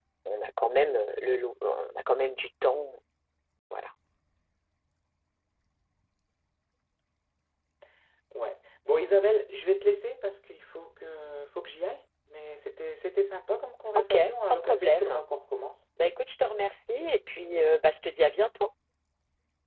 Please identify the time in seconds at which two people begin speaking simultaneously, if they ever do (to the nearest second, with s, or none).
14 s